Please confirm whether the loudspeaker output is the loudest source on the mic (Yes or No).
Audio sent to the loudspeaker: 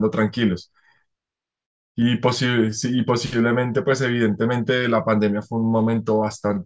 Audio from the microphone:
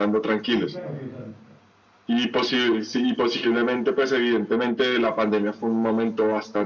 Yes